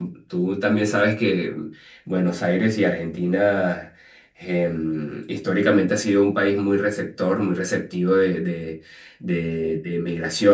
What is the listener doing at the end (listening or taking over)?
listening